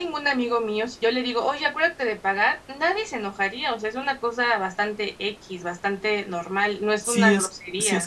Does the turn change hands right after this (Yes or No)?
Yes